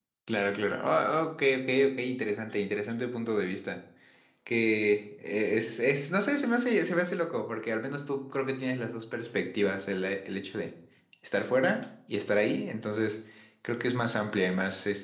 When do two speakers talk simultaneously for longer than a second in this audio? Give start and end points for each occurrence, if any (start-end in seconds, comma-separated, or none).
none